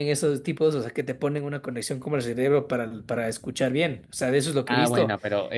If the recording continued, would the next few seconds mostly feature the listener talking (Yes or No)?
Yes